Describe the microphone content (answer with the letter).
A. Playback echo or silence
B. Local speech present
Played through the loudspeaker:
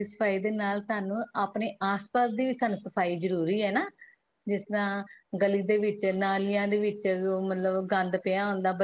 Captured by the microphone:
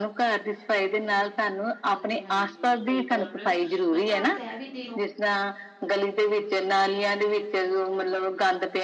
B